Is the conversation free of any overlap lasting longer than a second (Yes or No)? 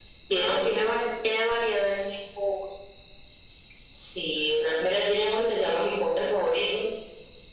Yes